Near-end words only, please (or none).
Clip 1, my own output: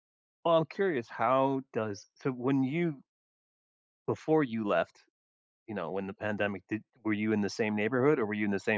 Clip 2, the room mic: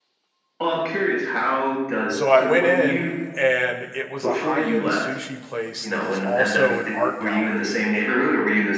so, I went in, and it was a high-end sushi place that was also an art gallery,